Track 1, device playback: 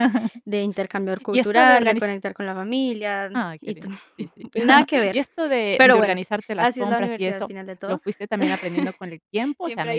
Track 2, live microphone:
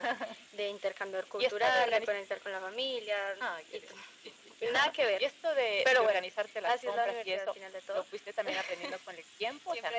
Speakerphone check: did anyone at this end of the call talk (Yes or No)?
No